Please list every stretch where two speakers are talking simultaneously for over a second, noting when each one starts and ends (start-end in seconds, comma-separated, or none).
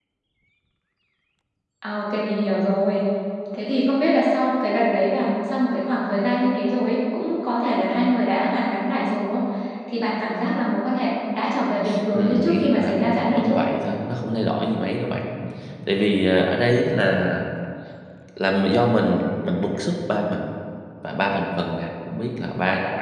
12.1-13.6